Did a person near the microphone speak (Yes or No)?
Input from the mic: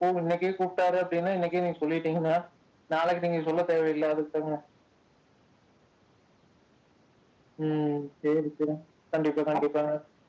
No